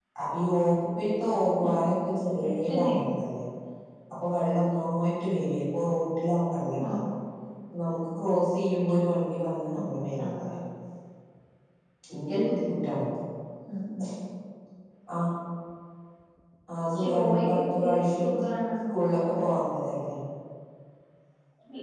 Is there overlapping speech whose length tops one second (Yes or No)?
Yes